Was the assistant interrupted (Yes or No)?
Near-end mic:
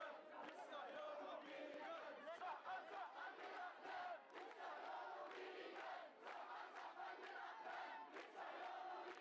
No